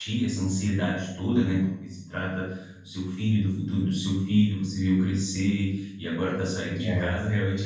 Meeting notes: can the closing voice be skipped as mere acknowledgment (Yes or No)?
Yes